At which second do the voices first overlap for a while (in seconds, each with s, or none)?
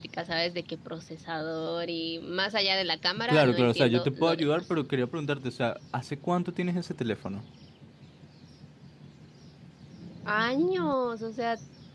3.3 s